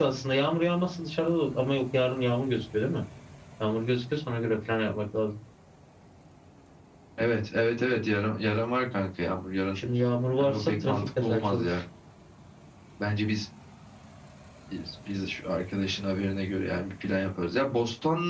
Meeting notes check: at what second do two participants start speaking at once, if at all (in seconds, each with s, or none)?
10.4 s